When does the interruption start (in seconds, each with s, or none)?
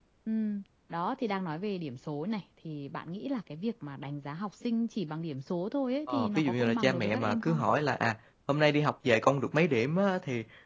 6.1 s